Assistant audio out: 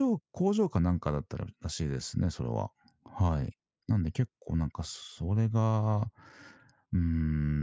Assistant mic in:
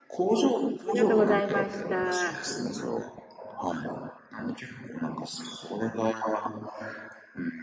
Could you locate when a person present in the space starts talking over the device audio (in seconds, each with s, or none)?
0.8 s